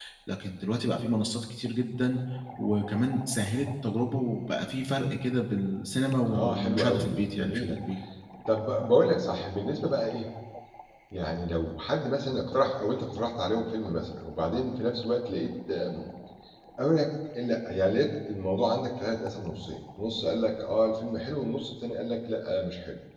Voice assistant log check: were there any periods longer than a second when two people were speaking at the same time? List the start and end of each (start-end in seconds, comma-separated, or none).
6.3-7.8